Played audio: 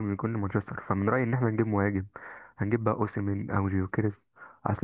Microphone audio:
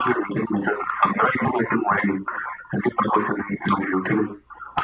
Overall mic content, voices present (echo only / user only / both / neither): echo only